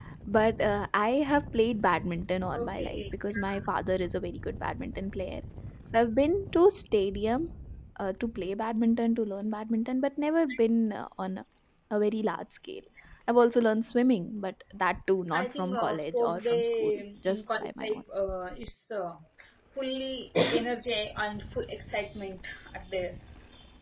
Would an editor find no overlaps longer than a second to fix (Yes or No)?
No